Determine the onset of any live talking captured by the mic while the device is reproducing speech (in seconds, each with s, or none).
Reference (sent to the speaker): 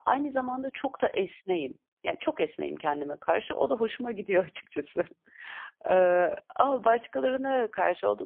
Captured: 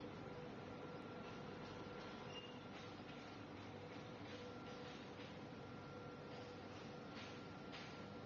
none